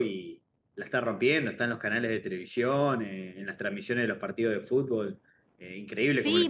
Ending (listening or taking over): taking over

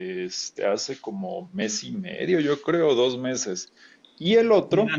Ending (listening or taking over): taking over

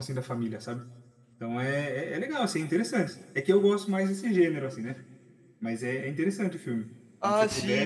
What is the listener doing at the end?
taking over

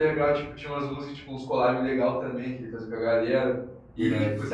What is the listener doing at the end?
listening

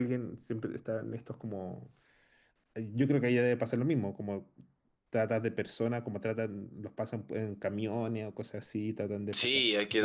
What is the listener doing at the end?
taking over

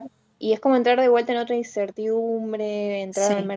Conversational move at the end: taking over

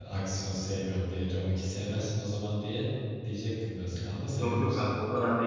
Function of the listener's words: taking over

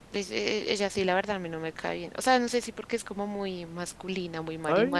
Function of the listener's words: taking over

